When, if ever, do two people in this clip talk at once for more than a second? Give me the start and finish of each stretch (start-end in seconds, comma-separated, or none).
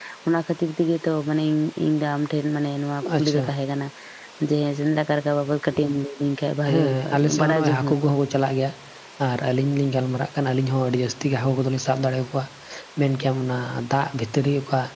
6.7-8.1